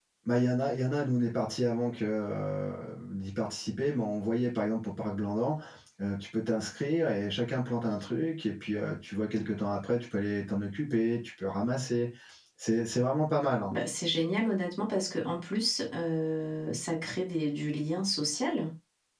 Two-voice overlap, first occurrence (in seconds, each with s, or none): none